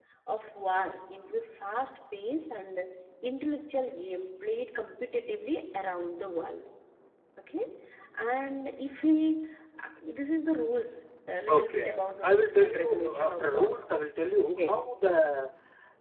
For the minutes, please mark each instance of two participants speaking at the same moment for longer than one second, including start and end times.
11.6-13.7

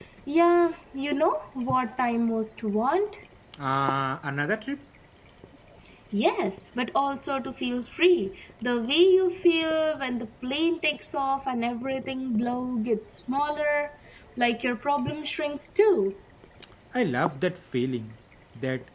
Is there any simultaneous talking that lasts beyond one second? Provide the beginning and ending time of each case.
none

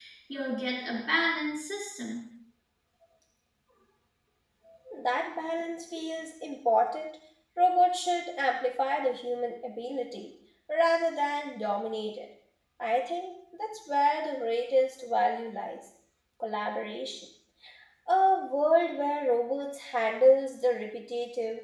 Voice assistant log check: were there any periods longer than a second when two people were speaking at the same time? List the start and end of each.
none

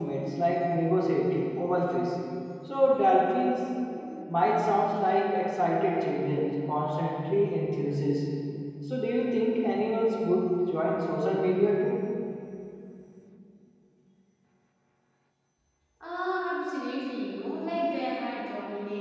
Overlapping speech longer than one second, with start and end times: none

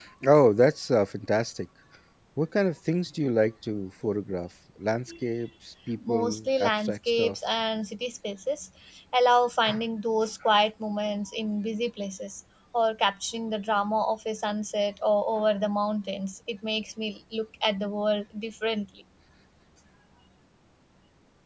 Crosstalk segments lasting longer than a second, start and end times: 6.1-7.4

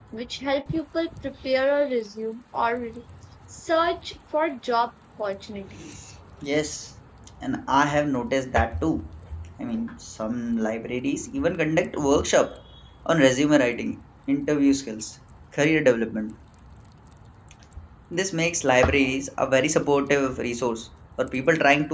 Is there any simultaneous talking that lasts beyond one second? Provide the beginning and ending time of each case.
none

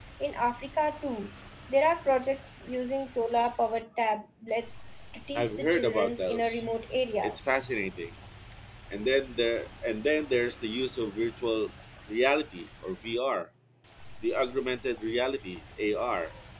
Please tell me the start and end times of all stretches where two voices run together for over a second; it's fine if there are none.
5.3-6.7

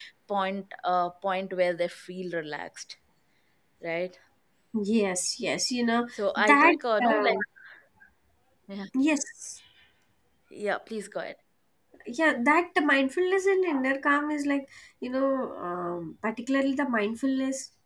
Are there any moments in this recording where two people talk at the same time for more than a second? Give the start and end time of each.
6.1-7.4

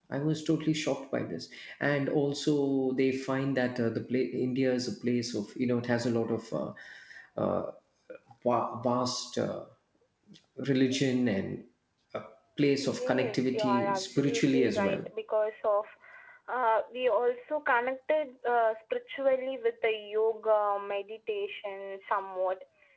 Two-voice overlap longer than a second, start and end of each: 12.8-15.0

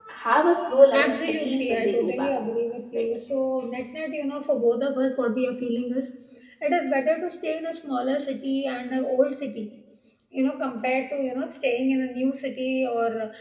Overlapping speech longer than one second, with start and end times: 0.9-2.5

